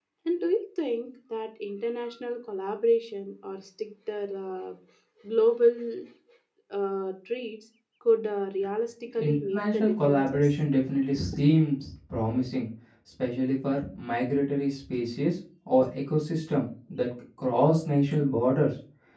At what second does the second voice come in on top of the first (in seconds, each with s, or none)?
9.2 s